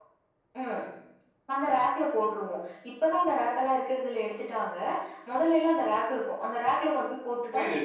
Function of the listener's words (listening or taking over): taking over